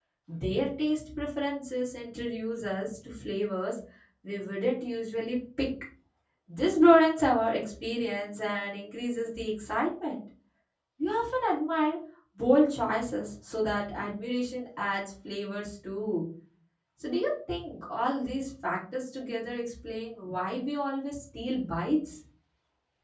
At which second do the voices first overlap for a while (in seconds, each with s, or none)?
none